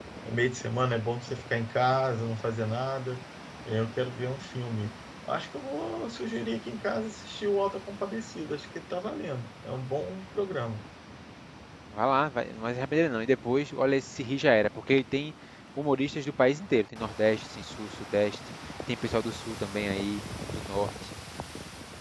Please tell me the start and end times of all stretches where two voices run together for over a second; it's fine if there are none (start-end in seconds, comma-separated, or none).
none